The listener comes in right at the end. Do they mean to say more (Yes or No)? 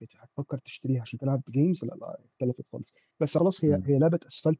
No